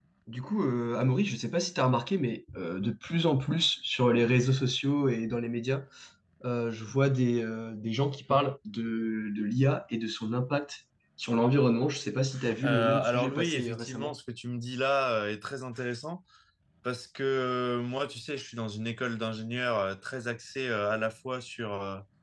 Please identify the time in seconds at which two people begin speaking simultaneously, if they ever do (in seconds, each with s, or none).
12.6 s